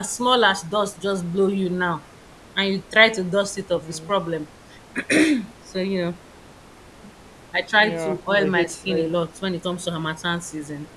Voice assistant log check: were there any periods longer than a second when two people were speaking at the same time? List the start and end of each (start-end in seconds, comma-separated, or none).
7.8-9.1